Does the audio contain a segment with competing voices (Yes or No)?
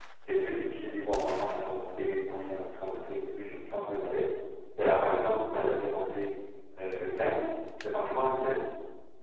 No